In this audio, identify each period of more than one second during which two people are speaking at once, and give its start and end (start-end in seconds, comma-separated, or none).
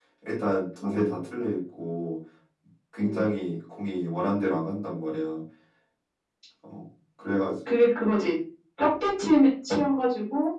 none